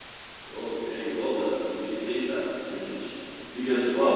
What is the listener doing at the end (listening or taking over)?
listening